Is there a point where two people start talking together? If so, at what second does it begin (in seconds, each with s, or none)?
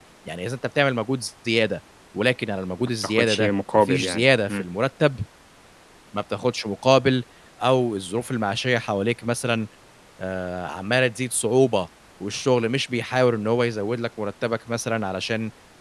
3.0 s